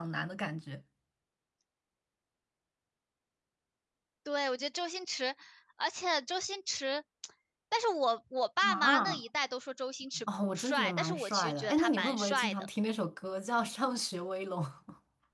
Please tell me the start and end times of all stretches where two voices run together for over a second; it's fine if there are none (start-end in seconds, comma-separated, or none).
10.5-12.7